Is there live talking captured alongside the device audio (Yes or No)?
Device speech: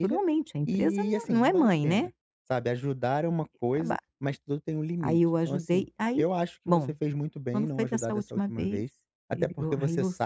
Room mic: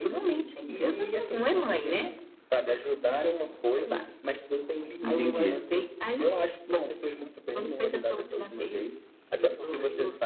Yes